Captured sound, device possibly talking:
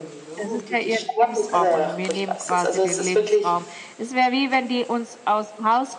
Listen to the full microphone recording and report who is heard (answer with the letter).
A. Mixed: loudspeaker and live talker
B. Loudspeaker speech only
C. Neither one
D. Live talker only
A